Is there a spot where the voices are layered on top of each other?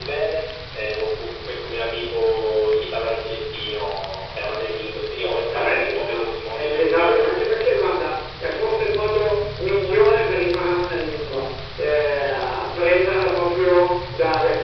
Yes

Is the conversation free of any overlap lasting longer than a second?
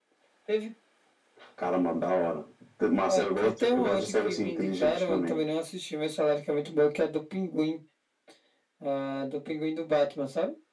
No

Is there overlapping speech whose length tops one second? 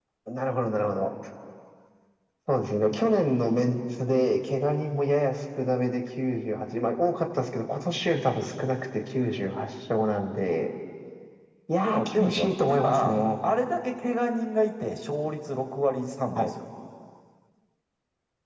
Yes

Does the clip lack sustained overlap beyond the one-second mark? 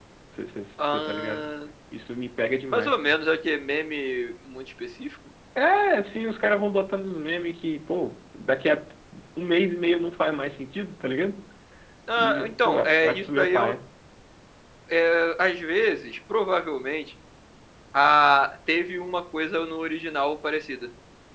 No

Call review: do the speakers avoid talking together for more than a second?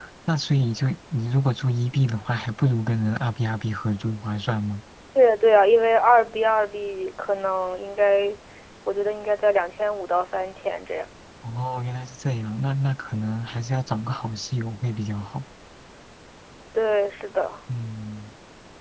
Yes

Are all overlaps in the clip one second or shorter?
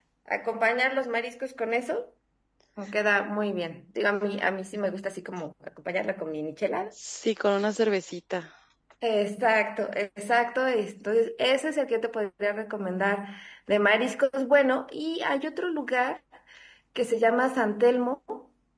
Yes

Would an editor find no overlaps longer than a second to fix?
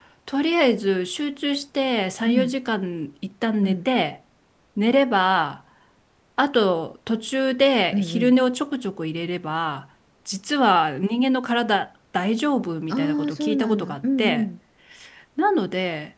No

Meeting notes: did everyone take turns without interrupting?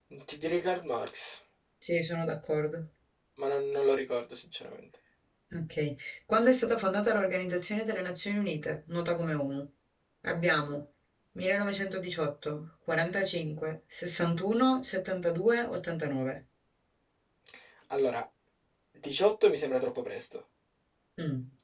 Yes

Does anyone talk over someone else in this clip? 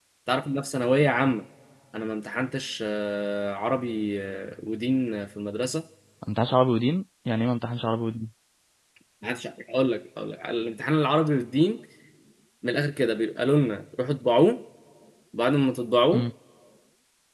No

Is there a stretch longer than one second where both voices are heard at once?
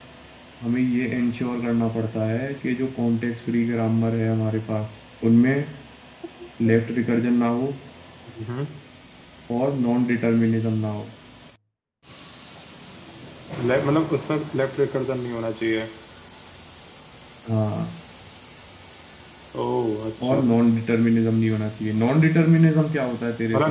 No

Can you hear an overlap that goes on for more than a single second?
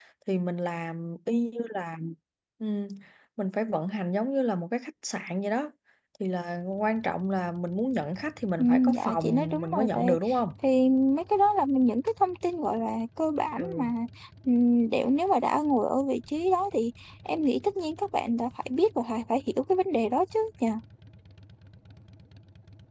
Yes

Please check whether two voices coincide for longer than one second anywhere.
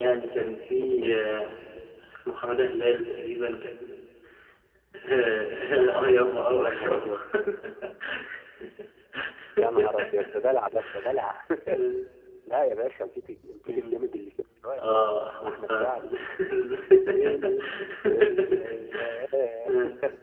Yes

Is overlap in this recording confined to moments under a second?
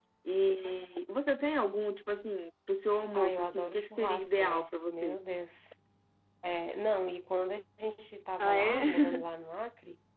No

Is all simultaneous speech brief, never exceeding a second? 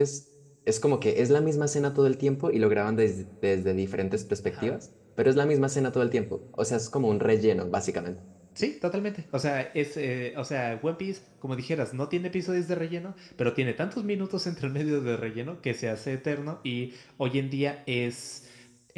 Yes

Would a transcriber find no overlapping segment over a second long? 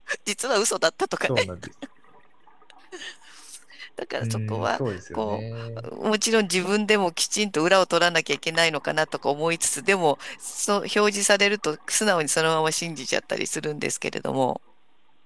No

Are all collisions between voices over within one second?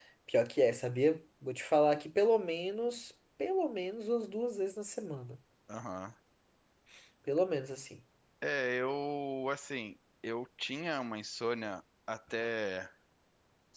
Yes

